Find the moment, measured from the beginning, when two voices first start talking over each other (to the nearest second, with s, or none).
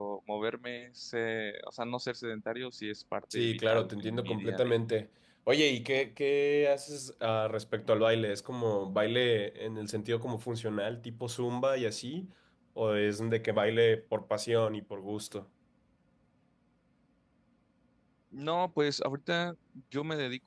3 s